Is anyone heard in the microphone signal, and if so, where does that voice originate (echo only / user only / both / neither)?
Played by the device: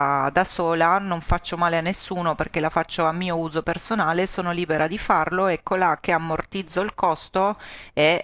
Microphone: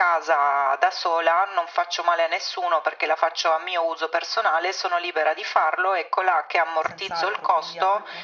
both